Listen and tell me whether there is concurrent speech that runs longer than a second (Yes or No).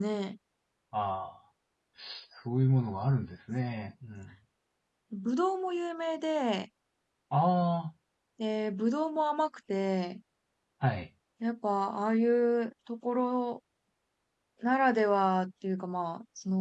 No